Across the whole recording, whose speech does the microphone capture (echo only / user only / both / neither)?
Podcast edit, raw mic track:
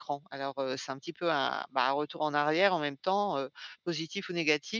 user only